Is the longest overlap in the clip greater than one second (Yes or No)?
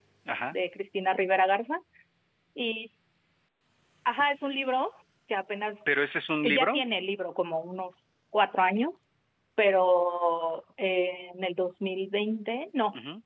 No